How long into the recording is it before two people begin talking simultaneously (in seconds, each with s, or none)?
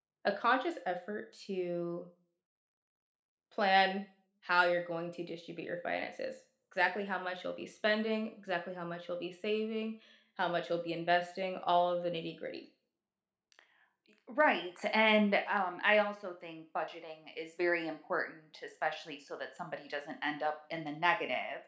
none